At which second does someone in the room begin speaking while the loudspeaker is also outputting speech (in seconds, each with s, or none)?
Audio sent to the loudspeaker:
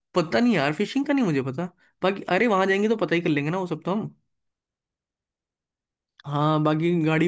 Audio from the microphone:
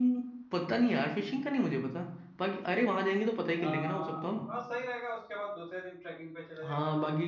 3.6 s